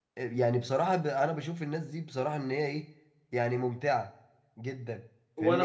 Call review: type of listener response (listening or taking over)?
taking over